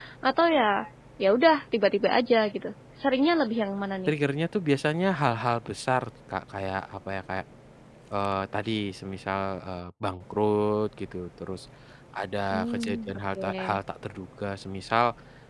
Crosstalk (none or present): present